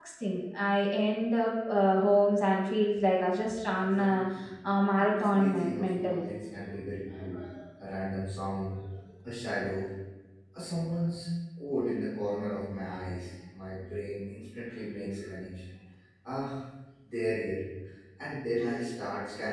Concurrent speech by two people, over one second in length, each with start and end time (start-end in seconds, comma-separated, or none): 5.0-6.3